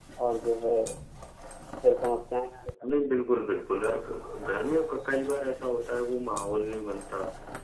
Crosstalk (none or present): none